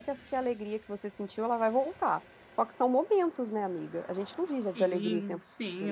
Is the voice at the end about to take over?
Yes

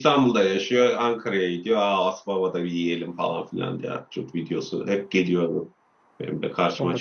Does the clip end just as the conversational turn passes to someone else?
Yes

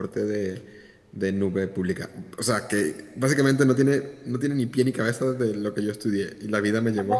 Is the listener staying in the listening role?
No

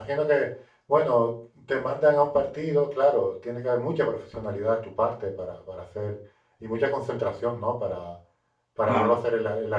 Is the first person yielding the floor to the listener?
No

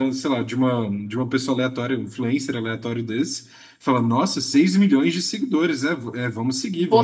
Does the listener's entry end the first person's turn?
No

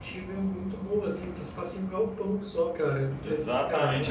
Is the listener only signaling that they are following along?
No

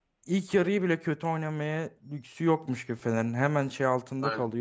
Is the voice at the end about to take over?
No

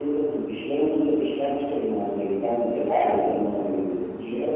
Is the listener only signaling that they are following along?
No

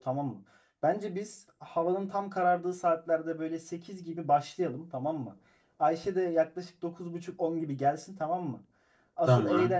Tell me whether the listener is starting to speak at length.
No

